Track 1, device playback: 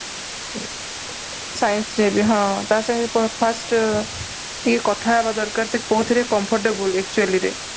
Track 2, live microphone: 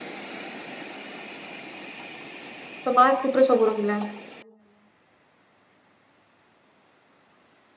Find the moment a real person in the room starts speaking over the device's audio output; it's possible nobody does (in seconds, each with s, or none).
2.9 s